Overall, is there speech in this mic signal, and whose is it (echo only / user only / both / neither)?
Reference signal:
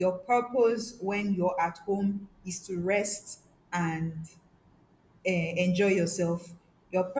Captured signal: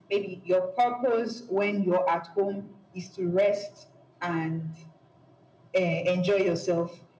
echo only